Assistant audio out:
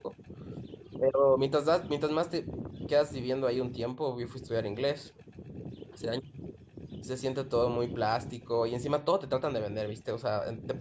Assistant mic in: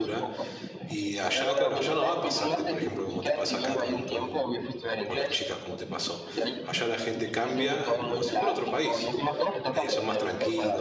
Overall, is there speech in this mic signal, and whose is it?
both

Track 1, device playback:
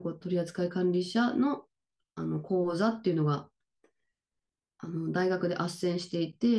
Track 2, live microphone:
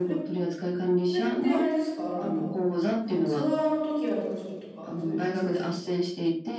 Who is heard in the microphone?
both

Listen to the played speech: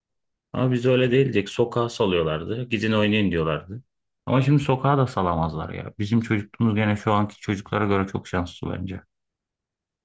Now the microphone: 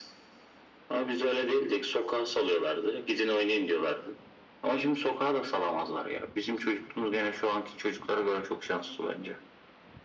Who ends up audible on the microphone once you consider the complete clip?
echo only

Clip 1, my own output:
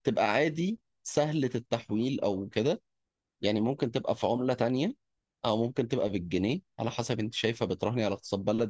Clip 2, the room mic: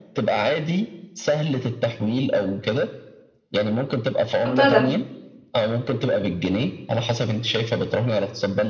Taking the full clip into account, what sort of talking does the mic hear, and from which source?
both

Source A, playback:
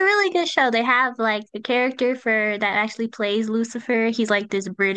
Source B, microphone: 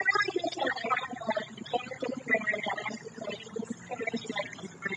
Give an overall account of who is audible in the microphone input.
echo only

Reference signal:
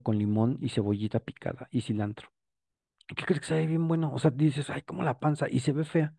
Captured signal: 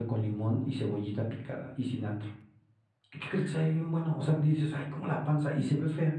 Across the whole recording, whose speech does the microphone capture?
echo only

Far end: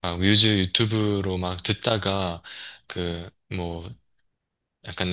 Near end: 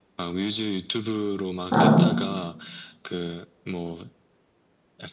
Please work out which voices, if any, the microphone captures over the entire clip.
both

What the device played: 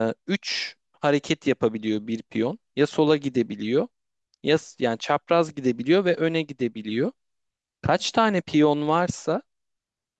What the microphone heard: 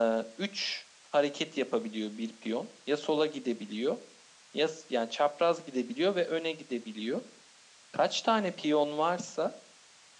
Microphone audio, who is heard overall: echo only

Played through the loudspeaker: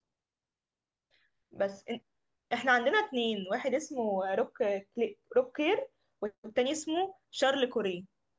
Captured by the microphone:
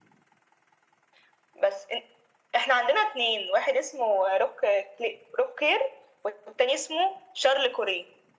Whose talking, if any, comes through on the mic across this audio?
echo only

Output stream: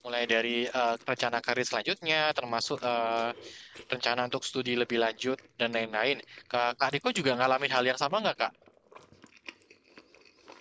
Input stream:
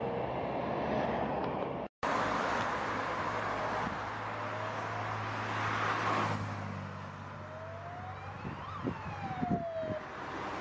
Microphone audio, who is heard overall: neither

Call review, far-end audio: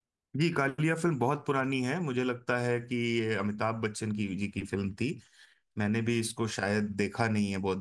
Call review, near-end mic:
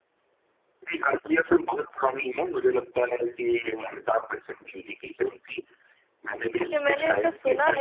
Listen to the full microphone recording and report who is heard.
both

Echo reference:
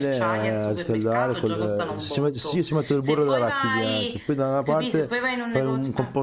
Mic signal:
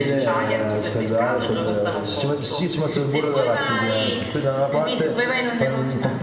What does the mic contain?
both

